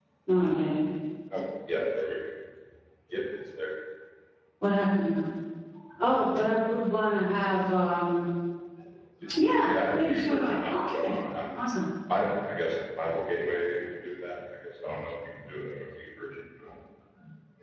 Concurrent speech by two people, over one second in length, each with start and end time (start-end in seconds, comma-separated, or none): 9.7-11.1